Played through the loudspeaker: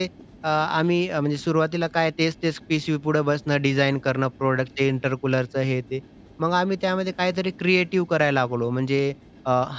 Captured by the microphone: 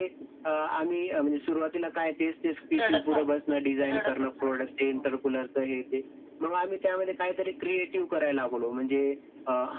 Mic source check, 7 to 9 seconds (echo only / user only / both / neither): echo only